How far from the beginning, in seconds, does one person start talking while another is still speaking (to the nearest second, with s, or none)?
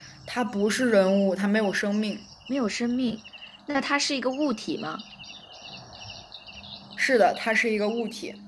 none